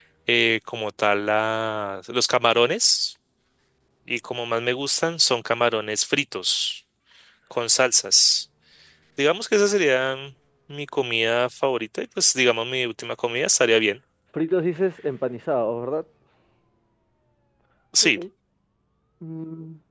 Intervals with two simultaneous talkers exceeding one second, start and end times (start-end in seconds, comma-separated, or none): none